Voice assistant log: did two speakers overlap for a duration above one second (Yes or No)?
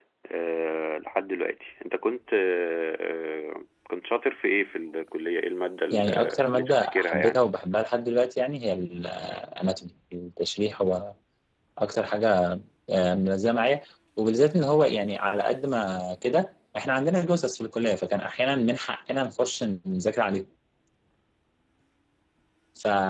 Yes